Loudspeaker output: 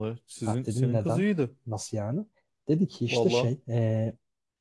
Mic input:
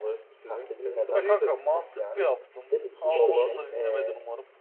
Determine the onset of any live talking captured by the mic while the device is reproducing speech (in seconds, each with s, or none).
1.1 s